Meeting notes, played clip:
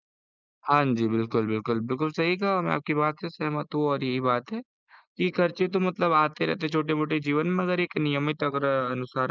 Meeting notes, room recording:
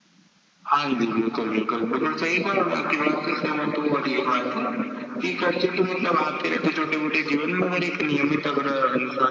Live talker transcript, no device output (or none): none